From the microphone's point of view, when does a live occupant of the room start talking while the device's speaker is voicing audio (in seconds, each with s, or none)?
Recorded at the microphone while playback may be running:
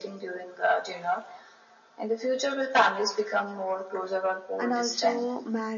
4.6 s